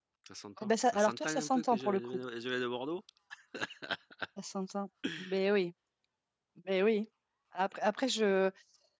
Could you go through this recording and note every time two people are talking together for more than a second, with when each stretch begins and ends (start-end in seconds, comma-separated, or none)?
0.6-2.2